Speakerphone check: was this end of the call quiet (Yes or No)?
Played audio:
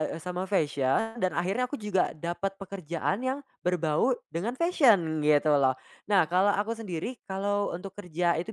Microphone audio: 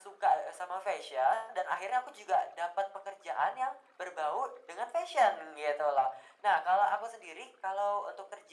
Yes